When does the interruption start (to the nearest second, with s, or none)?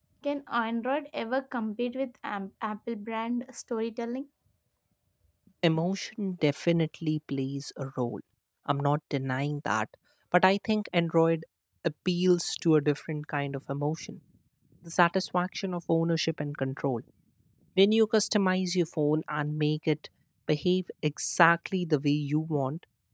none